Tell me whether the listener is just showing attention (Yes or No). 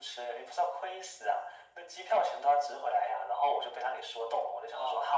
Yes